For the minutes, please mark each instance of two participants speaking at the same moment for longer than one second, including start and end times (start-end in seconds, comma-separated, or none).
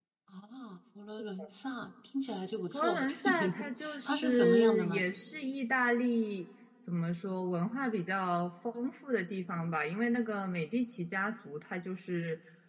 2.7-5.0